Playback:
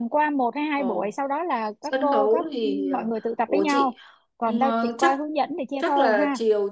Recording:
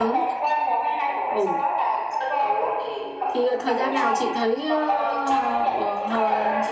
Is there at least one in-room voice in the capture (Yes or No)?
Yes